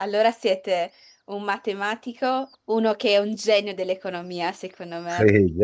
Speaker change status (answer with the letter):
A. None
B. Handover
B